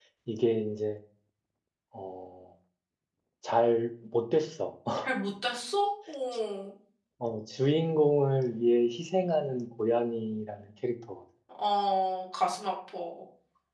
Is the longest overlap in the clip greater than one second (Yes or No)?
No